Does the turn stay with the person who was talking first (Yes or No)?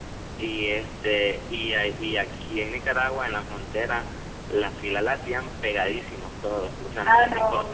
Yes